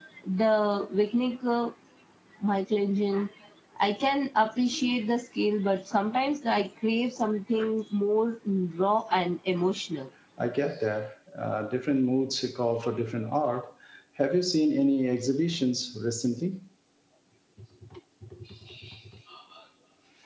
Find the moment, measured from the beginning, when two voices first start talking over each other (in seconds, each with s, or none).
none